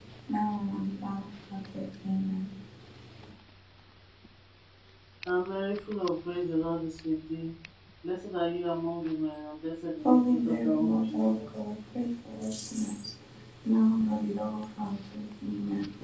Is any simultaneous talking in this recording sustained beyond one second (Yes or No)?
Yes